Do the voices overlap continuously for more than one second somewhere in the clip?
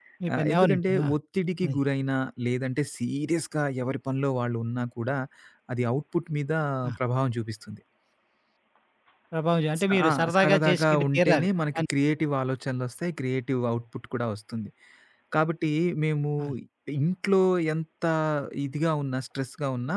Yes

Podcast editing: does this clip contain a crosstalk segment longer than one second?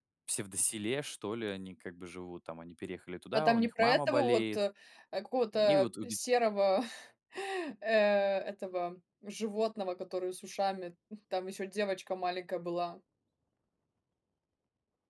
Yes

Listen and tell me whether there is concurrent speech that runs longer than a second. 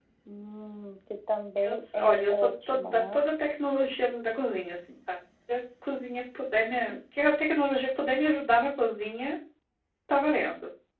Yes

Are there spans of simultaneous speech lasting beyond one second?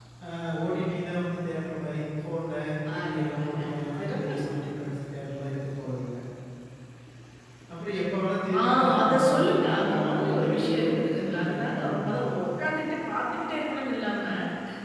Yes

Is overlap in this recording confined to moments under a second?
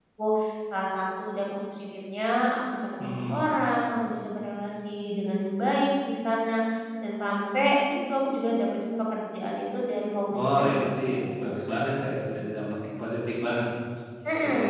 No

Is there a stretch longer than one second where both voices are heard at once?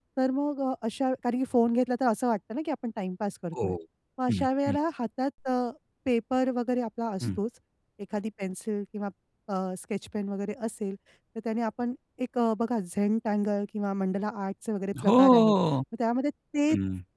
No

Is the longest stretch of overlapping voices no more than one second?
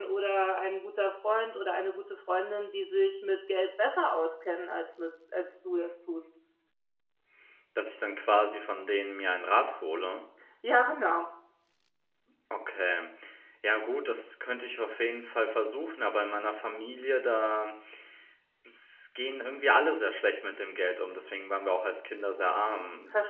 Yes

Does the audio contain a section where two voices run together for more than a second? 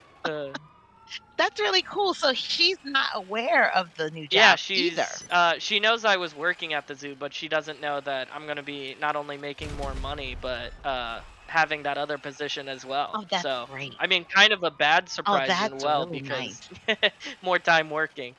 Yes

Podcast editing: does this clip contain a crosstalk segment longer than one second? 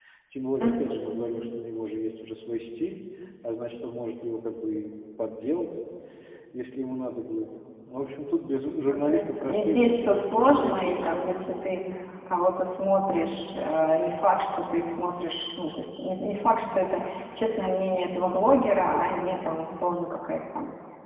Yes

